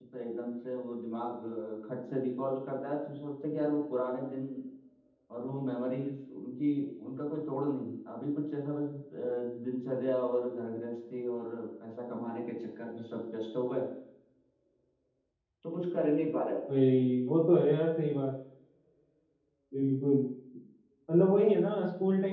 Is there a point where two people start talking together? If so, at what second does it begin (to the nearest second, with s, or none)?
none